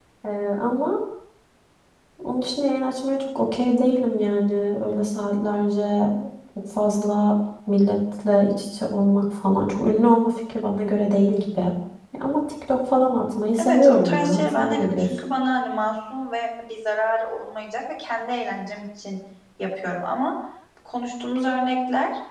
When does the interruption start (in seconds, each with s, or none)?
13.6 s